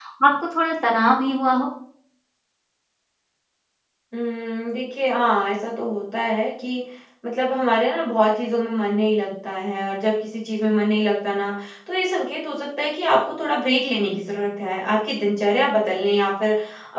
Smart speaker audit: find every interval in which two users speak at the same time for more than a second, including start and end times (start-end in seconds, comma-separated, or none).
none